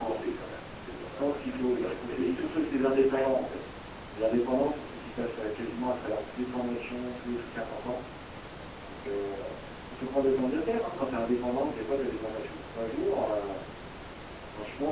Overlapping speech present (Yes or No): Yes